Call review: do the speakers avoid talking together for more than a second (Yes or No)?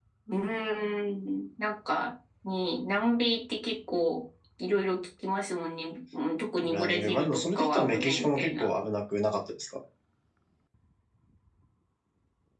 No